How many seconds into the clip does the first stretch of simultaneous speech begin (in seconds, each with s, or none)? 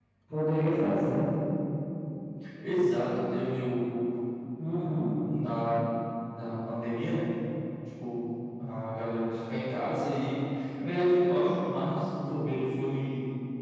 none